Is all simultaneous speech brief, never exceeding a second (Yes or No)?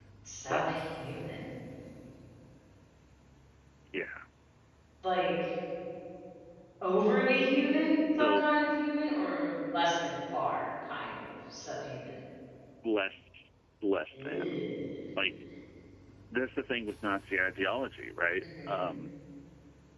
Yes